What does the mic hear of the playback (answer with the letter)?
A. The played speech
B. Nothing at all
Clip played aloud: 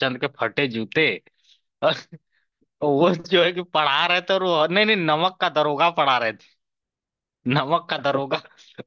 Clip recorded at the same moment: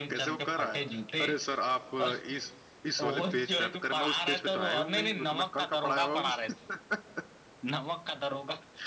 A